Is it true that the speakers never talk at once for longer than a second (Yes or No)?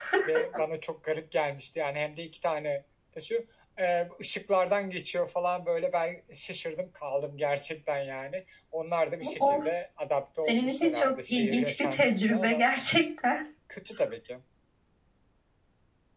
No